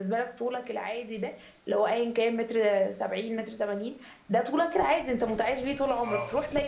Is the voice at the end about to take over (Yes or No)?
No